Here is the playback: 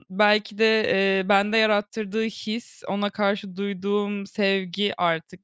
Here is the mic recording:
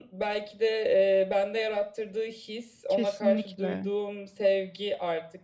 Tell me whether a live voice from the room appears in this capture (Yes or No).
Yes